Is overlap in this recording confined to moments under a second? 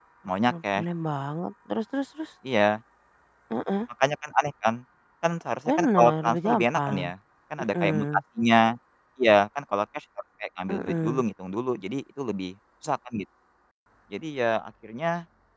No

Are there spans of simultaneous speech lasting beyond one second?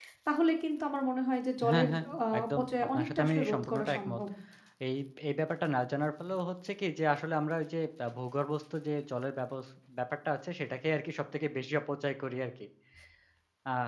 Yes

